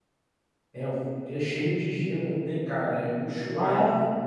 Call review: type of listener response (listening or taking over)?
taking over